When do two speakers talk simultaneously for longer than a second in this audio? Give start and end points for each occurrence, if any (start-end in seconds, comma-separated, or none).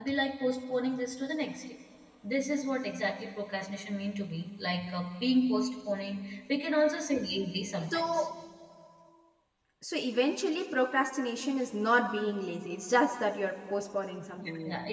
none